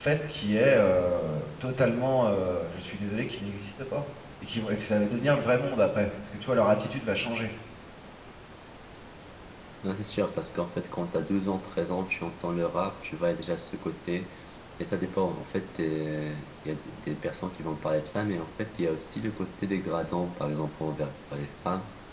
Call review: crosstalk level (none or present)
none